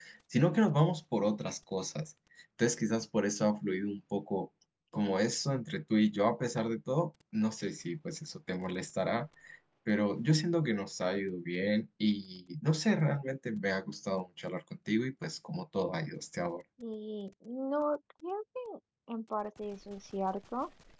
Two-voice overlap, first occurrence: none

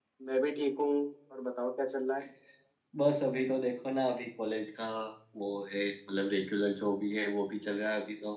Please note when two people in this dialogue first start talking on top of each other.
none

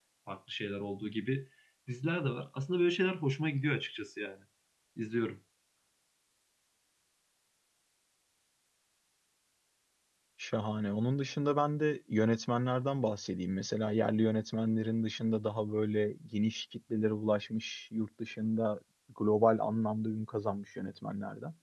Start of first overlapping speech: none

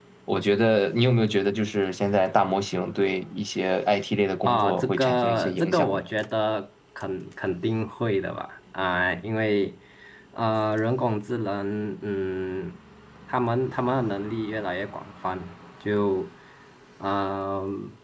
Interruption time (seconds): 4.5 s

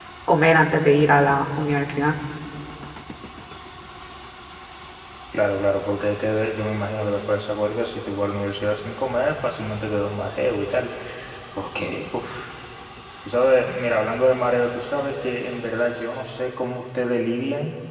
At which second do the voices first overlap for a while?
none

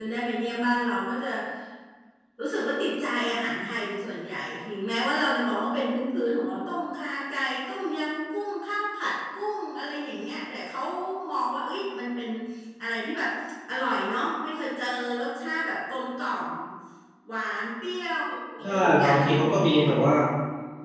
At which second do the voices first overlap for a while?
18.6 s

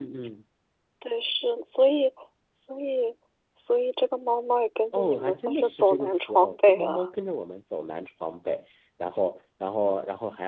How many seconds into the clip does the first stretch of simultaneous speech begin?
4.9 s

